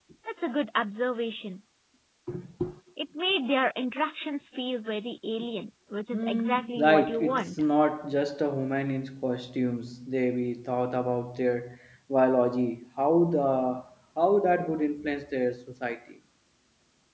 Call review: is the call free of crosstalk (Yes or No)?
No